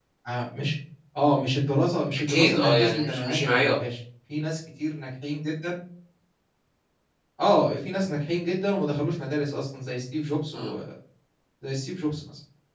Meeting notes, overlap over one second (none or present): present